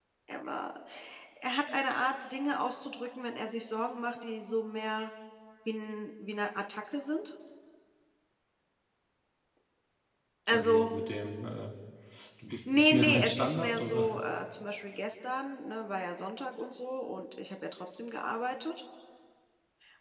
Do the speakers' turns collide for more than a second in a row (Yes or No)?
Yes